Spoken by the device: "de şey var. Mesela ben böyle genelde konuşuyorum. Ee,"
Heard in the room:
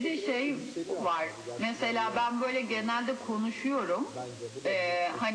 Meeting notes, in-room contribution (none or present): present